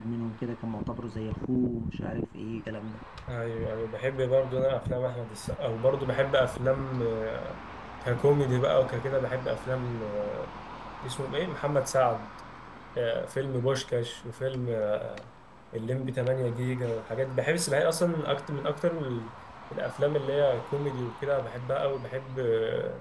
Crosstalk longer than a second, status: none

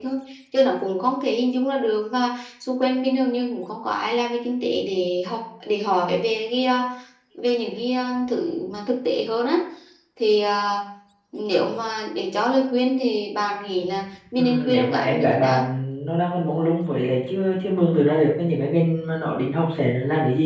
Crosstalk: present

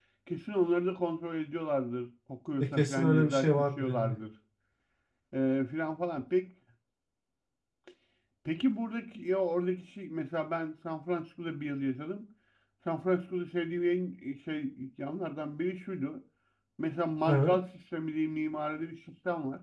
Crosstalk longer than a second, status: present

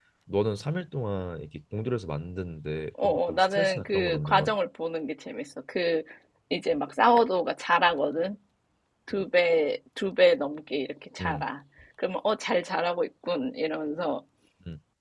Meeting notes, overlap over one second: present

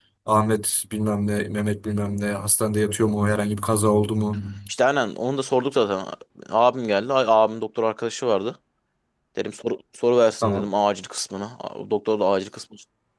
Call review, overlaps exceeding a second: none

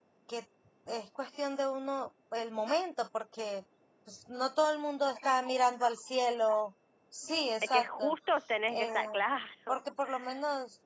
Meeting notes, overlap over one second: none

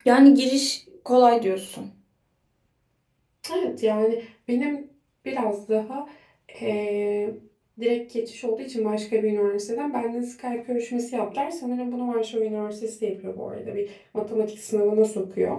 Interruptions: none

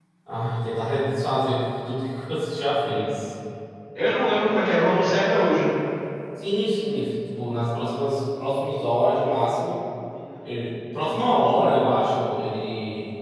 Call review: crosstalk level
none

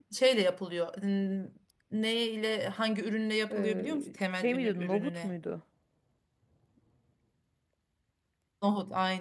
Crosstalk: present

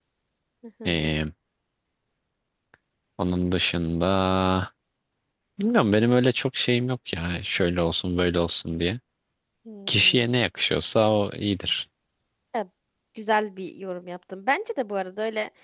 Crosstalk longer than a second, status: none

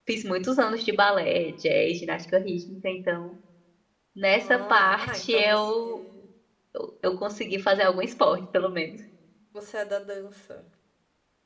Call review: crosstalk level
present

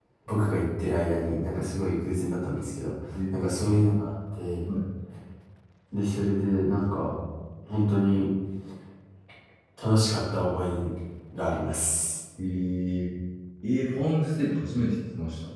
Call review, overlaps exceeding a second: none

